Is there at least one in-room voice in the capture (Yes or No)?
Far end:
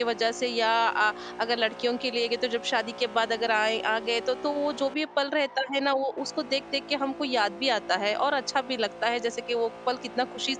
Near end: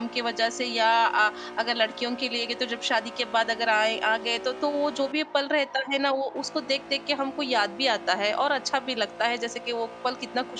No